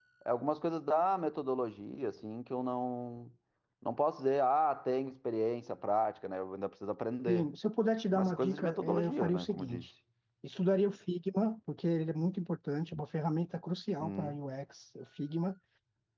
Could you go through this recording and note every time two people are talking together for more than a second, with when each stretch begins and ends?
8.1-9.9

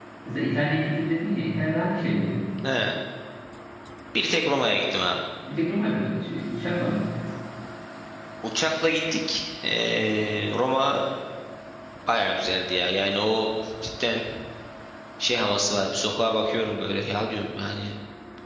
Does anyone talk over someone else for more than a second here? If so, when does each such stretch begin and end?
none

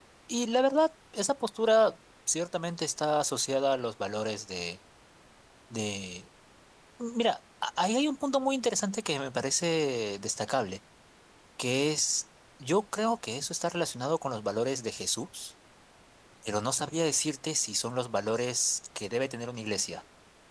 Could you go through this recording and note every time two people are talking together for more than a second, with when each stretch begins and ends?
none

